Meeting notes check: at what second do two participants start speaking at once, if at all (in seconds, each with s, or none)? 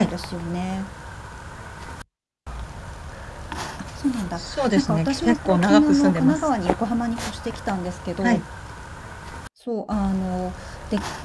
4.4 s